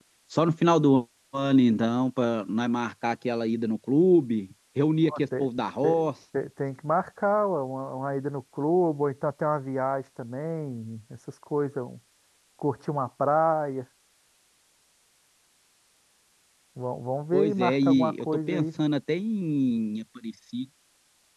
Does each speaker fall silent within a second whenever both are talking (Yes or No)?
No